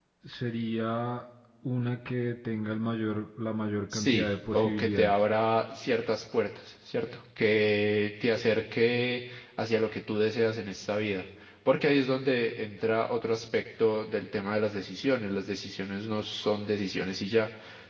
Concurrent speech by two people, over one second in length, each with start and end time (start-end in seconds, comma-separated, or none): 3.9-5.1